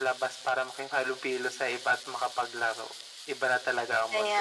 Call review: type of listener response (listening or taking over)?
taking over